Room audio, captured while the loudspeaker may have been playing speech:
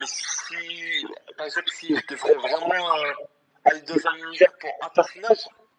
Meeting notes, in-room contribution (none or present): none